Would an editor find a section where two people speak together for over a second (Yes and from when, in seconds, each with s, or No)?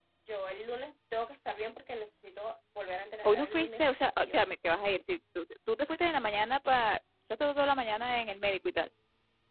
Yes, from 3.2 s